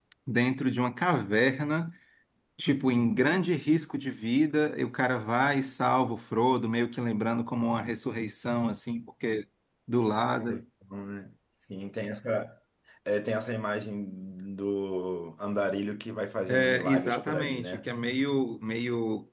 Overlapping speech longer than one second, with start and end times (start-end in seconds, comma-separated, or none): 16.5-17.9